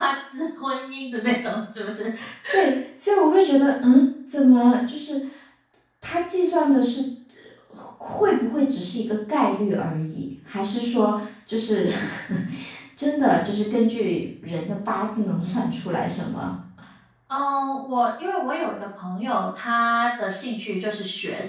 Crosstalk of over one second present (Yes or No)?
No